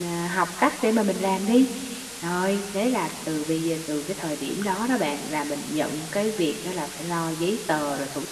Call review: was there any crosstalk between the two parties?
No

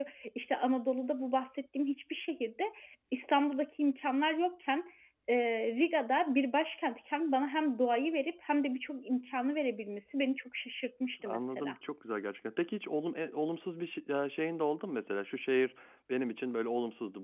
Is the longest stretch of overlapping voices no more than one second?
Yes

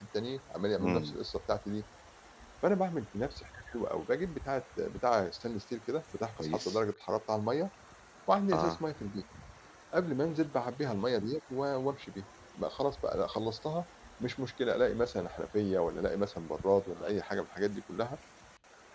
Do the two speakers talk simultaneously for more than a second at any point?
No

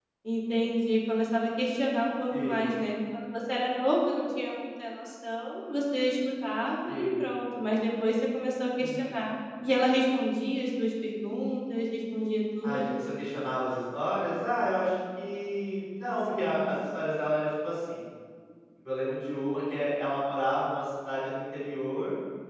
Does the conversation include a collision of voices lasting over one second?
No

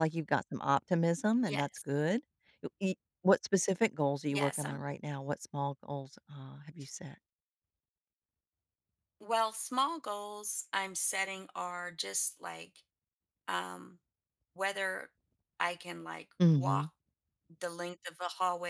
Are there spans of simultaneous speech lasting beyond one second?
No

